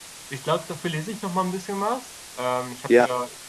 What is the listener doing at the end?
listening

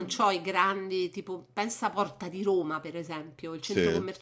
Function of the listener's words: listening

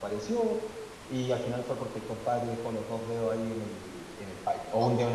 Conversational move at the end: listening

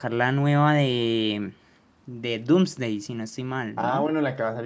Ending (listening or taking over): taking over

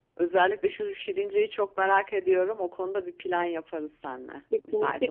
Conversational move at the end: taking over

